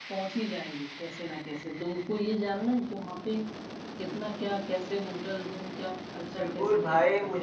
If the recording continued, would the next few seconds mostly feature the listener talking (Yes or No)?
Yes